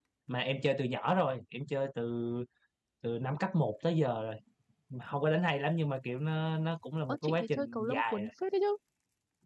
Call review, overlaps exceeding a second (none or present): present